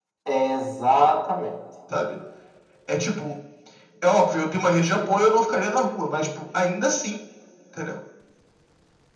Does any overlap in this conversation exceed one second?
No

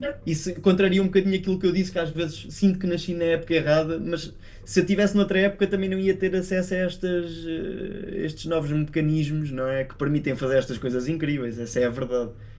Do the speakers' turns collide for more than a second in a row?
No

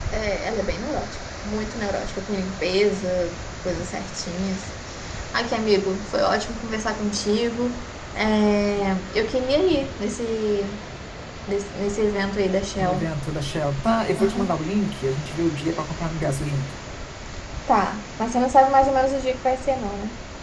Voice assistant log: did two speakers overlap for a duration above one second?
No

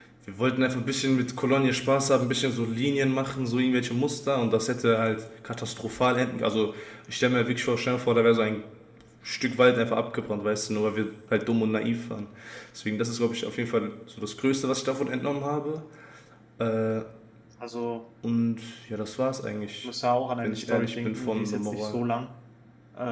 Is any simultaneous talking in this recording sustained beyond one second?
Yes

